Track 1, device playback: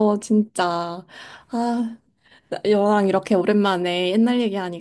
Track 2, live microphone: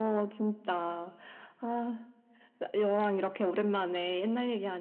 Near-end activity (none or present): none